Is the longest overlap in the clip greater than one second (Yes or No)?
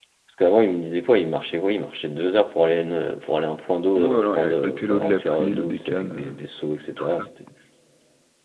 Yes